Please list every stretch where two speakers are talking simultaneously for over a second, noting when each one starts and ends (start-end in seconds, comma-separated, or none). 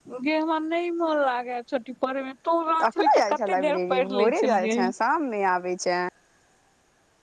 2.9-4.8